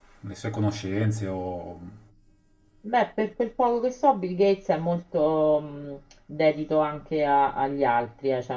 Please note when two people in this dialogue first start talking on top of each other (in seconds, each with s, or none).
none